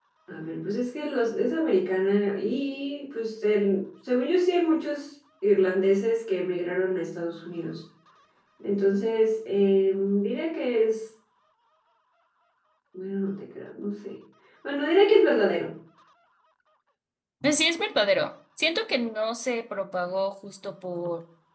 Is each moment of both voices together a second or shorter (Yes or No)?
Yes